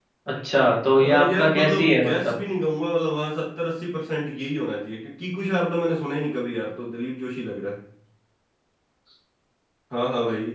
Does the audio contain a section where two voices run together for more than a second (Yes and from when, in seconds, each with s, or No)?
Yes, from 1.0 s